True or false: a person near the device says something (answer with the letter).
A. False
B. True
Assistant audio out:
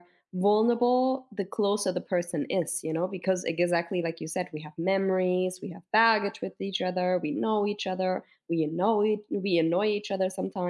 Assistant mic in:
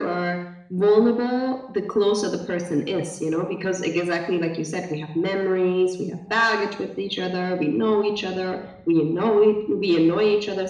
A